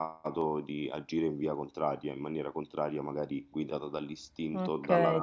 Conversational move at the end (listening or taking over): taking over